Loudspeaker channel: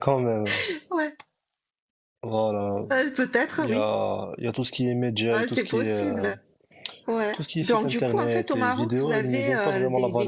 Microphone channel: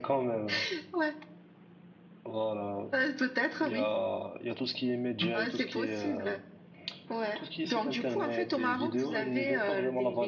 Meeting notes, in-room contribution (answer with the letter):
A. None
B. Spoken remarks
A